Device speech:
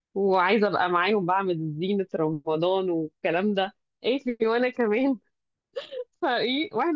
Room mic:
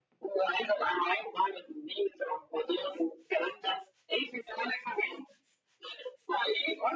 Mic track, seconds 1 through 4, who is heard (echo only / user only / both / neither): echo only